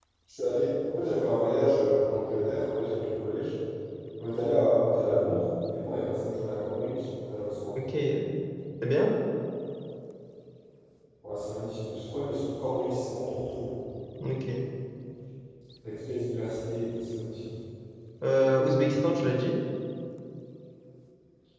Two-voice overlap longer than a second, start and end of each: none

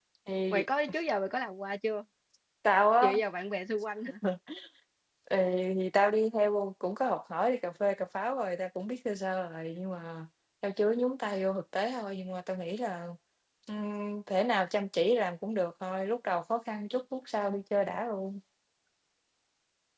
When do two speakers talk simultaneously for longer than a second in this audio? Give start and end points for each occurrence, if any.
none

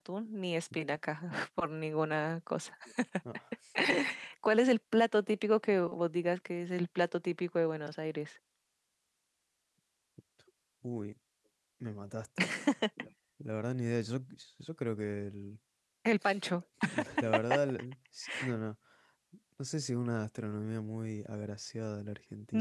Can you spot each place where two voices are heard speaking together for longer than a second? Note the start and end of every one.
none

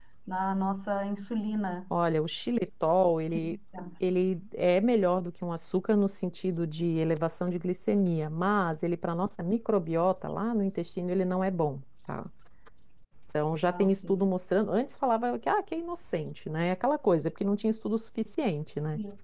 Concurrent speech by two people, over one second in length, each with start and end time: none

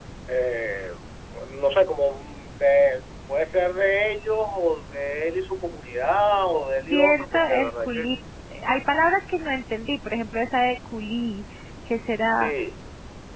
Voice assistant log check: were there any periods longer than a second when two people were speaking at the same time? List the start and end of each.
6.8-8.1

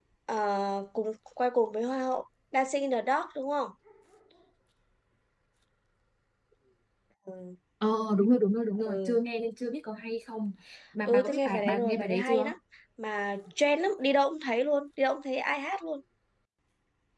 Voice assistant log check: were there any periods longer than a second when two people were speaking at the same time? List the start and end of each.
11.1-12.5

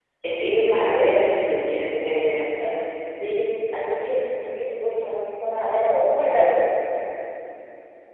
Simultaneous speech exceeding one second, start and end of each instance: none

